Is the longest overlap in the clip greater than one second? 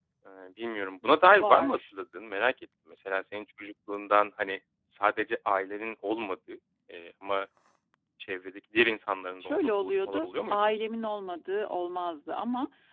Yes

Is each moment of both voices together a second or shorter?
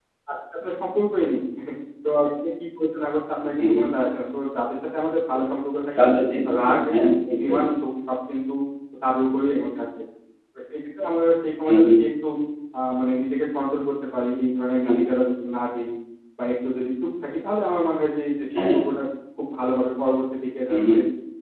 Yes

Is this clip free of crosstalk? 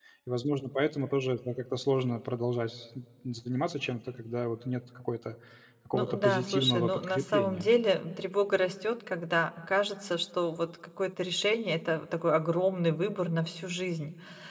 No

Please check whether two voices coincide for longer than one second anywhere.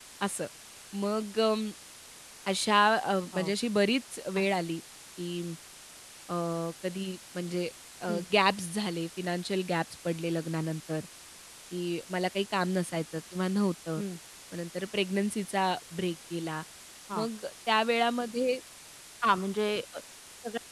No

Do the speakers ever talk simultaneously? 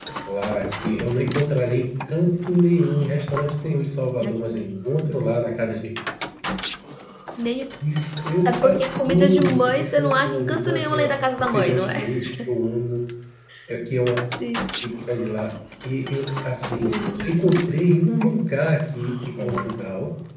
Yes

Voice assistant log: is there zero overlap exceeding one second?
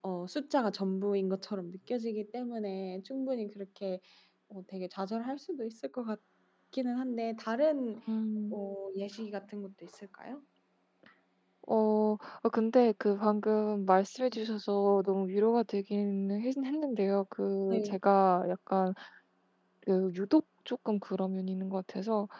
Yes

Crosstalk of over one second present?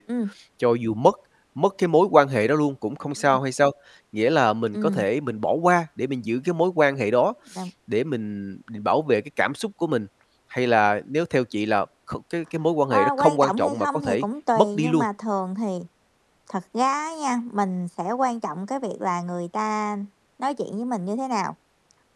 Yes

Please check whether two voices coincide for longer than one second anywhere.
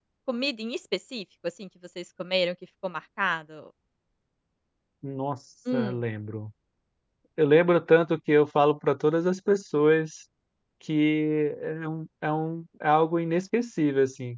No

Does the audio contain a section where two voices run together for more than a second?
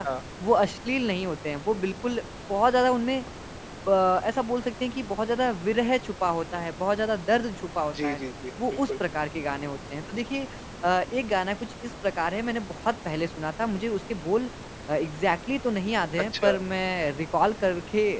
No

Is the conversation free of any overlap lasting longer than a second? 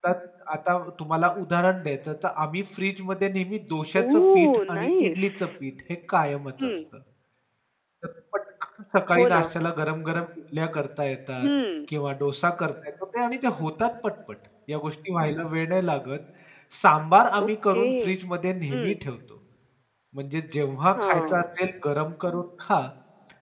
No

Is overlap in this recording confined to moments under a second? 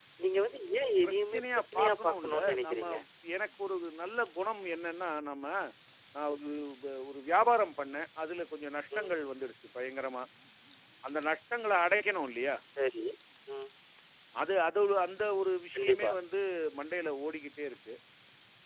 No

